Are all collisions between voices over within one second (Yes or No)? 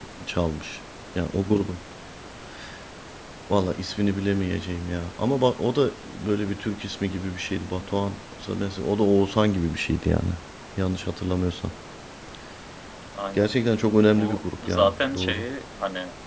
No